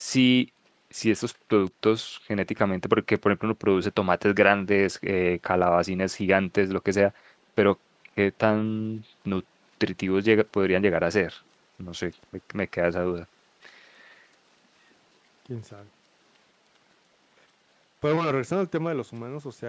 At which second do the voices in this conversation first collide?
none

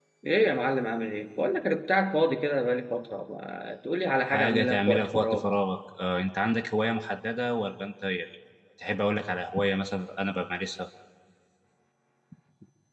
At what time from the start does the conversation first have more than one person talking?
4.2 s

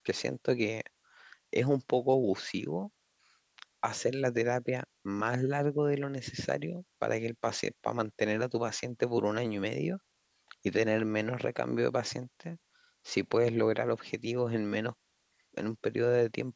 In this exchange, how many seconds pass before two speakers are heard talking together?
none

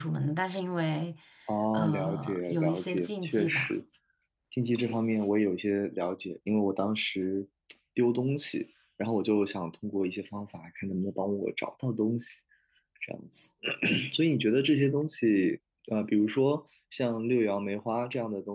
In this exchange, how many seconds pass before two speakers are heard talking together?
1.7 s

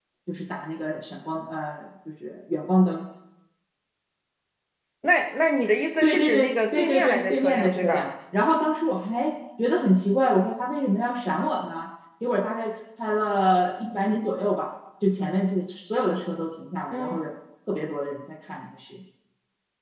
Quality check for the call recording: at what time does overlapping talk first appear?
6.0 s

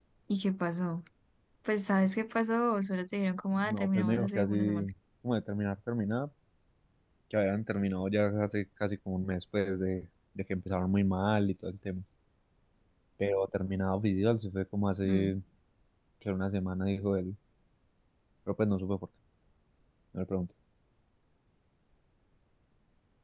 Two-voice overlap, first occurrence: 3.6 s

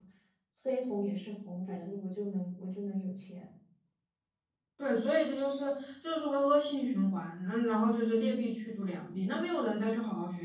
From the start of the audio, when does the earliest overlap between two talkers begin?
none

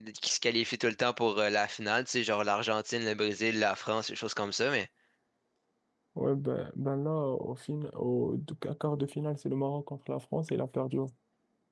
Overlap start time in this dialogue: none

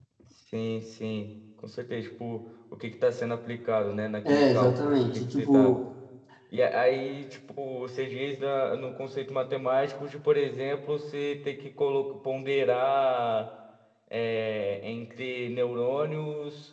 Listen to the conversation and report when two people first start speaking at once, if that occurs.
4.2 s

